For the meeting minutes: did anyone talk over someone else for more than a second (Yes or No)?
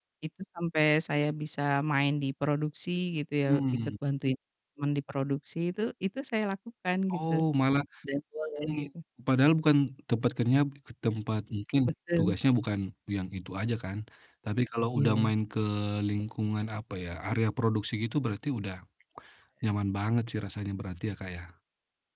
No